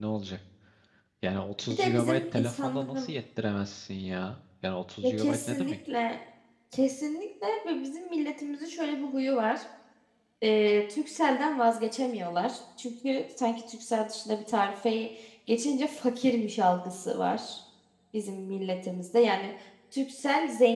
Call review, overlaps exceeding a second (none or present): present